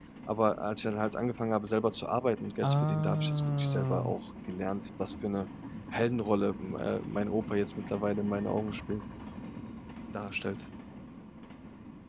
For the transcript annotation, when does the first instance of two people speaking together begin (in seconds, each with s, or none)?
2.6 s